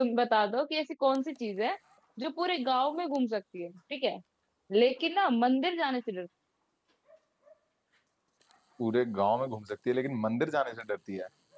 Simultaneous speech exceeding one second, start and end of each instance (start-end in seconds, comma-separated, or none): none